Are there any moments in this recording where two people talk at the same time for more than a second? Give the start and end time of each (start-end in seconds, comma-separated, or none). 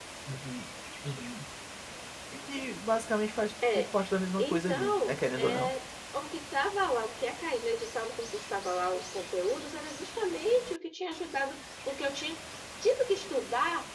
4.4-5.7